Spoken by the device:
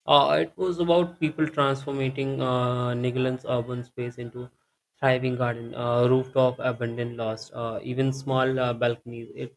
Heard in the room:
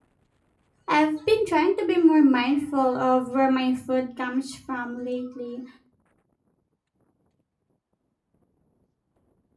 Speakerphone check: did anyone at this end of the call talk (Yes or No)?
Yes